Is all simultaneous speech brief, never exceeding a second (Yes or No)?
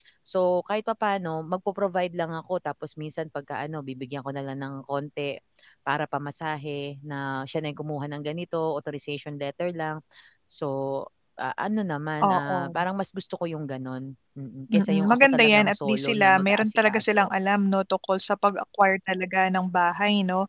No